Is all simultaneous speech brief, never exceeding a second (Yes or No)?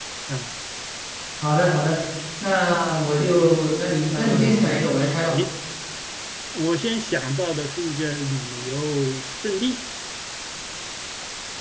No